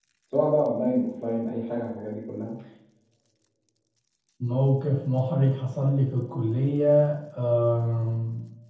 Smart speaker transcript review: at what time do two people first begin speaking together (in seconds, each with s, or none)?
none